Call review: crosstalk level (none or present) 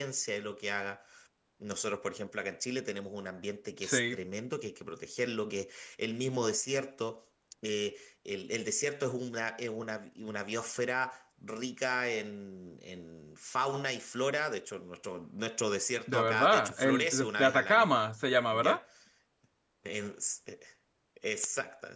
present